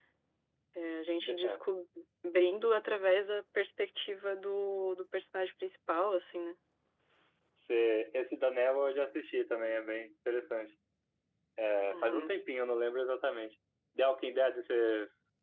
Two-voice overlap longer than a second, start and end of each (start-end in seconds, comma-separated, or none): none